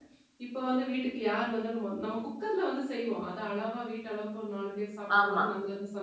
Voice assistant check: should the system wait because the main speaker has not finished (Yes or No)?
Yes